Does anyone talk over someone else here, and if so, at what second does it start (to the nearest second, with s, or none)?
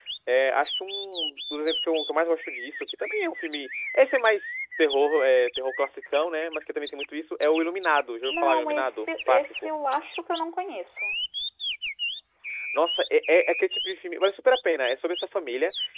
8 s